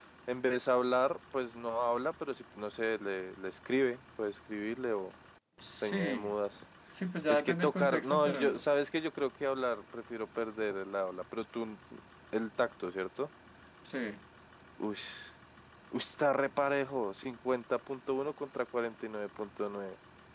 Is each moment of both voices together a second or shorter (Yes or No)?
No